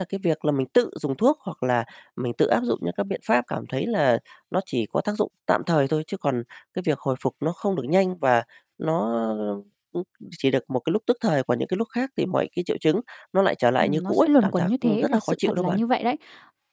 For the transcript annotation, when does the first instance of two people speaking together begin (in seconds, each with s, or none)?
13.8 s